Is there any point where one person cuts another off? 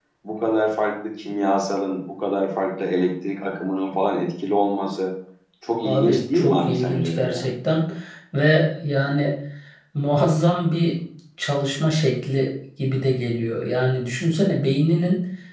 Yes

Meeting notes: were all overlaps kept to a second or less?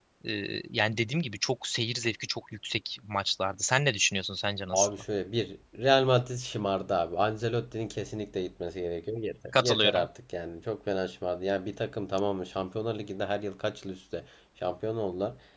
Yes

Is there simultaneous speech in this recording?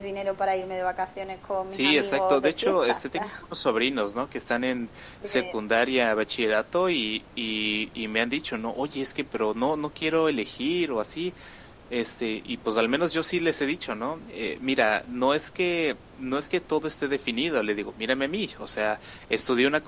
Yes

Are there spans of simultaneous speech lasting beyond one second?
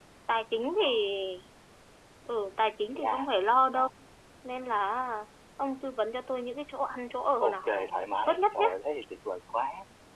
Yes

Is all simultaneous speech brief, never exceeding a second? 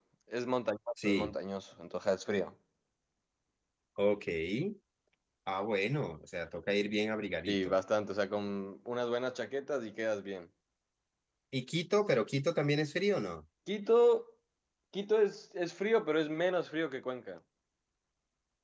Yes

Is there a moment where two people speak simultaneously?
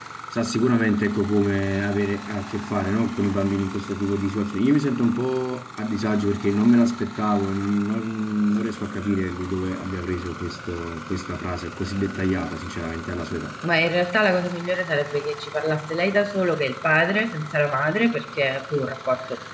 No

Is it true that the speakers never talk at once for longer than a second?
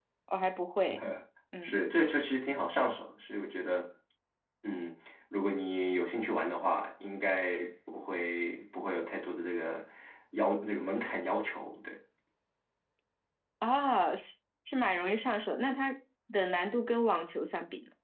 Yes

